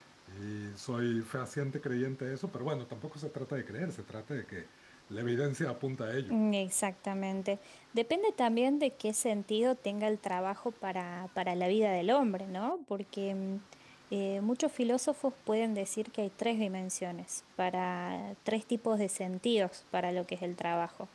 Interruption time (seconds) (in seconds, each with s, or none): none